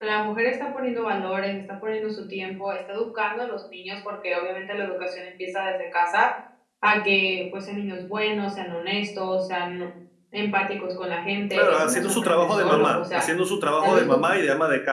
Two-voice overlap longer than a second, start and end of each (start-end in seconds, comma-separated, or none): 11.5-13.2